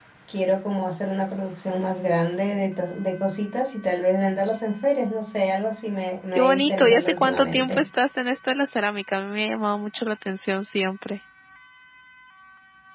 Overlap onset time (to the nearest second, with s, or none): 6 s